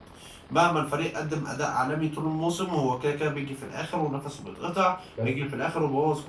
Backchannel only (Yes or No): Yes